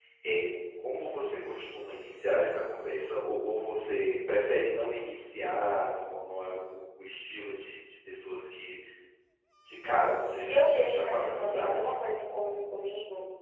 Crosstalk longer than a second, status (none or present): present